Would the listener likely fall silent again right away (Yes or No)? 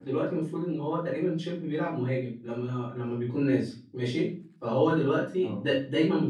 Yes